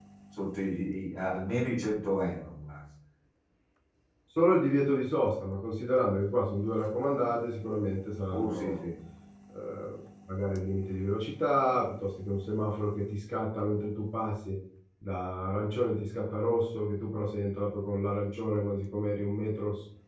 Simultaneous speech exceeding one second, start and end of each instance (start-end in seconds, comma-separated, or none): none